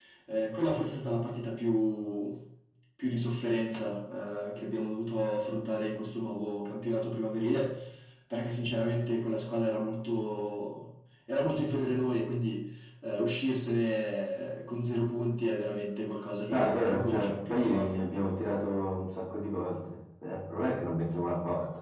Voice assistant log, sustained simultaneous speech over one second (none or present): present